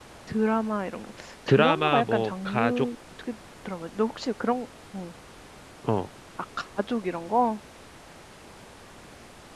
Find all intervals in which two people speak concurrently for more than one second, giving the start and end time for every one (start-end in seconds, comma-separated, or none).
1.5-2.9